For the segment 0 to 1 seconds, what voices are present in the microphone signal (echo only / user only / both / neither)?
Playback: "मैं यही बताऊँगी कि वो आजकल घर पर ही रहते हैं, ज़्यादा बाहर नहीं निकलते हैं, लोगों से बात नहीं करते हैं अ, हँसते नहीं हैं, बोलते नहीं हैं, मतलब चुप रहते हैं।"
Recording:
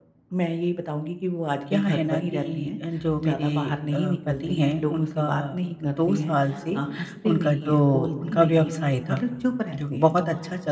echo only